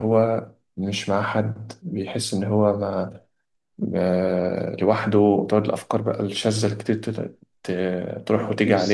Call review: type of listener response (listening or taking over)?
taking over